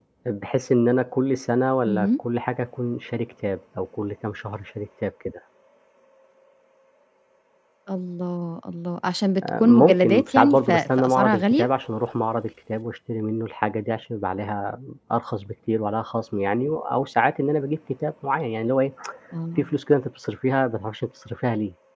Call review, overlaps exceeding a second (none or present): present